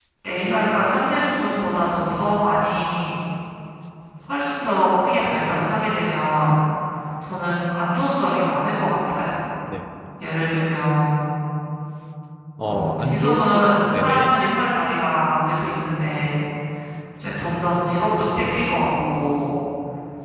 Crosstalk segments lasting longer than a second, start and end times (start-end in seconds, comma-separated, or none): 12.6-14.4